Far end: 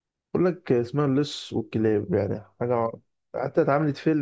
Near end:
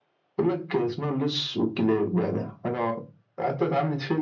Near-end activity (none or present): none